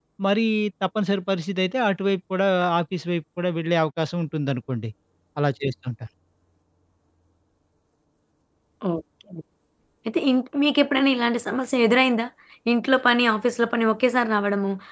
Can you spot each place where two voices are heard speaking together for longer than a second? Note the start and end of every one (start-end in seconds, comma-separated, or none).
none